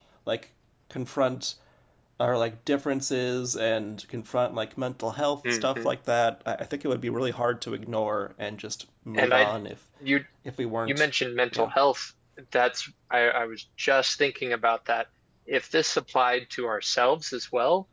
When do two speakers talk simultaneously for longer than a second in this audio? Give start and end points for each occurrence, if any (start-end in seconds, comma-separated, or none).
none